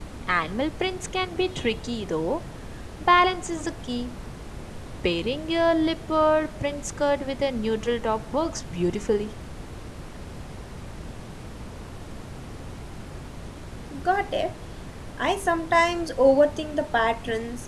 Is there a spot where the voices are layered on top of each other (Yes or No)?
No